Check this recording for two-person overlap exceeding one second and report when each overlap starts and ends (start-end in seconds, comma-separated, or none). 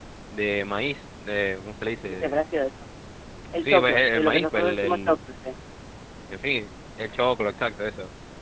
3.6-5.1